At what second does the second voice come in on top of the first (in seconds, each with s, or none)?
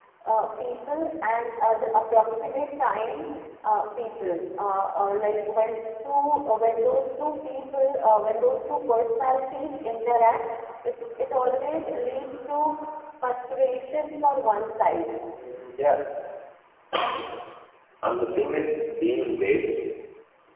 none